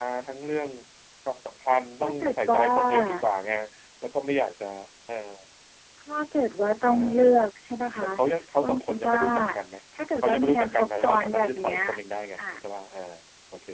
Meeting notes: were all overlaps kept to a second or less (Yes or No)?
No